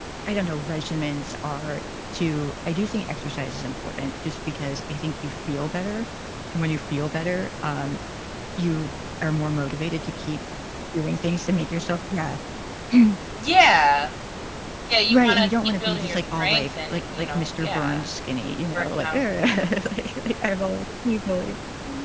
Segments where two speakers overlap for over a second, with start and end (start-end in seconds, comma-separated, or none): 15.1-18.1